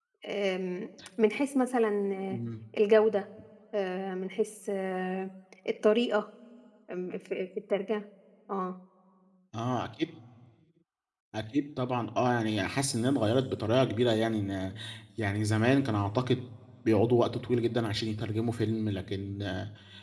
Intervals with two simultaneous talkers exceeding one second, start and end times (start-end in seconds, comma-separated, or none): none